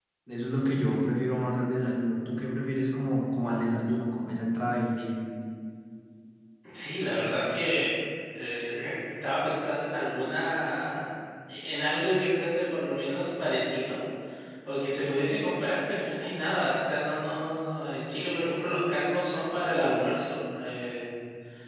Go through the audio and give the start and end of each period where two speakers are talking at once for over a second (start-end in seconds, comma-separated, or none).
none